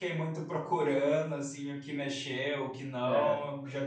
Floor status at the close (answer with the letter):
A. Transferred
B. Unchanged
B